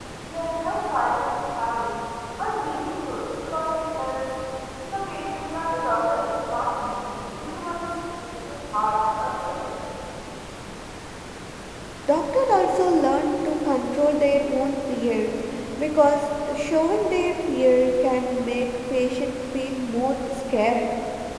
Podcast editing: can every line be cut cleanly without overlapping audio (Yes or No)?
Yes